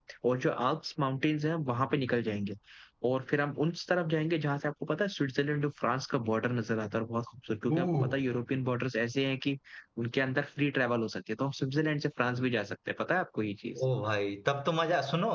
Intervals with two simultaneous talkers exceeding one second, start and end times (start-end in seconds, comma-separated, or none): none